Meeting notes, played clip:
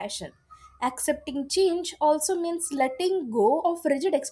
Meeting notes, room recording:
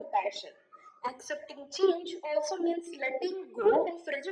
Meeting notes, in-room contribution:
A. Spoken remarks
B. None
B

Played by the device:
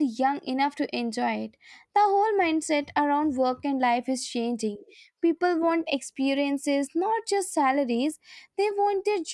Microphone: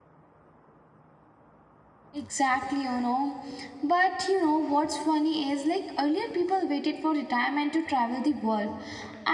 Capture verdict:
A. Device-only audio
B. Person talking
B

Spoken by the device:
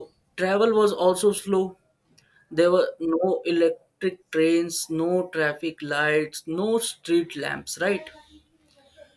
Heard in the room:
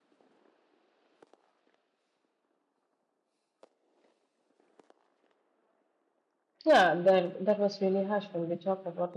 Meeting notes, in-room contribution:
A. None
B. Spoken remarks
B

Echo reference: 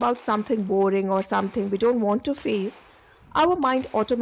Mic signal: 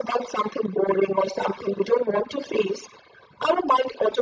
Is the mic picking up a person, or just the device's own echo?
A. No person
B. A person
A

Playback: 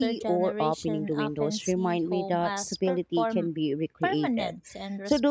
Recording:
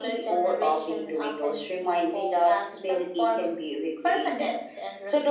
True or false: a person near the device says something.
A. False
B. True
A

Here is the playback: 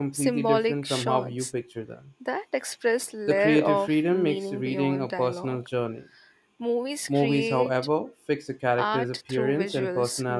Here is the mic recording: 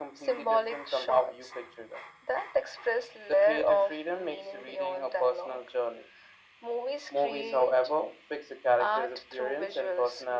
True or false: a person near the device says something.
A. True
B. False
B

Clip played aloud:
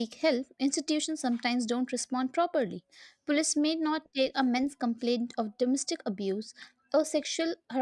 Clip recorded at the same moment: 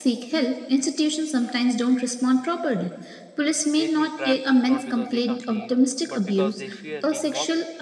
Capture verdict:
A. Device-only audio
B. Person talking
B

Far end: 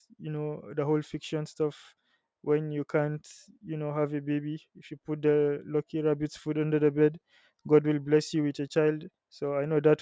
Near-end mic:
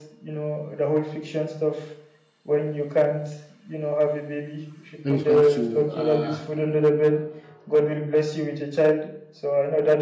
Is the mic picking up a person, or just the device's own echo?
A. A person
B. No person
A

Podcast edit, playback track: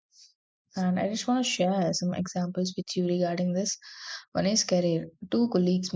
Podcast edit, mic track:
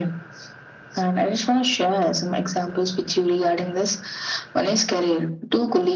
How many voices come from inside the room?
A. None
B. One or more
A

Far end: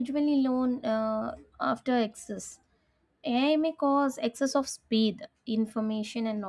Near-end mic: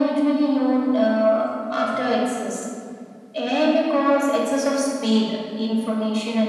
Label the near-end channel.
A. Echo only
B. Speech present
A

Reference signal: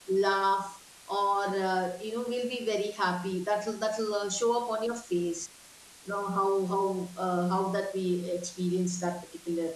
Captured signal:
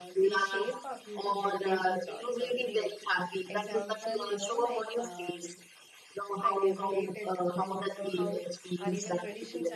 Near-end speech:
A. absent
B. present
B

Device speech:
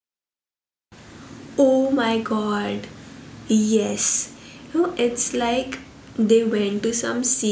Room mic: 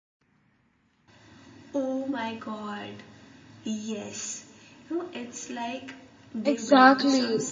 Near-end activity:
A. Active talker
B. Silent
A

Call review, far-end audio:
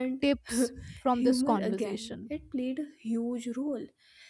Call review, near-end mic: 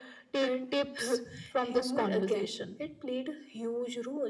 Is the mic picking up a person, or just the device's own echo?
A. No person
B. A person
A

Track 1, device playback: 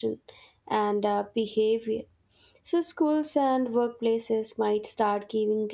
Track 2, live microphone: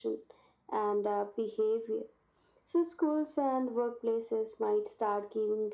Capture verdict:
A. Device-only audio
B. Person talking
A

